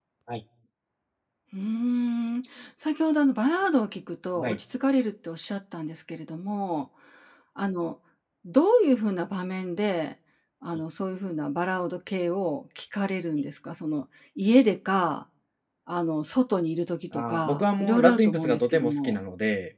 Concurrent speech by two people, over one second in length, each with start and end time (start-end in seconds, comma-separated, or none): 17.1-19.1